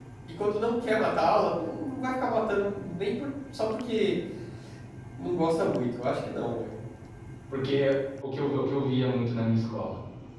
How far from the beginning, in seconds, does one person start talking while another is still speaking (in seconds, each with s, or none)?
none